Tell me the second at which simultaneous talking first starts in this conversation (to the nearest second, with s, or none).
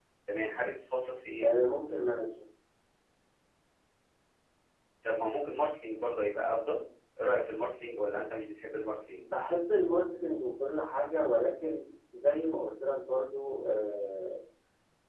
none